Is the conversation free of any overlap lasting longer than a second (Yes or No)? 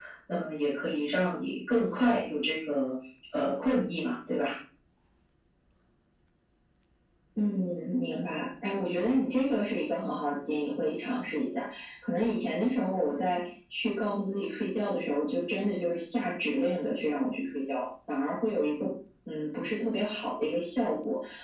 Yes